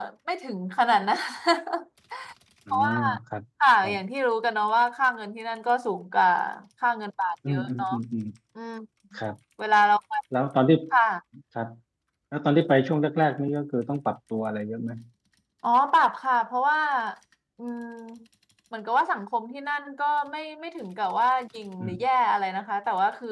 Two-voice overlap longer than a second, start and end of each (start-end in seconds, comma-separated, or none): none